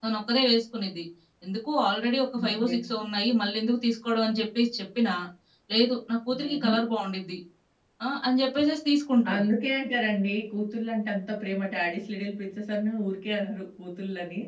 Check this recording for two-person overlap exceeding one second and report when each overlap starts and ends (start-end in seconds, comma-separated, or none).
none